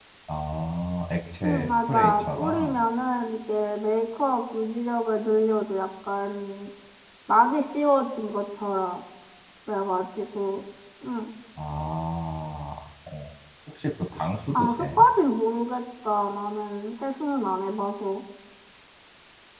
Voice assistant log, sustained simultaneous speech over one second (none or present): present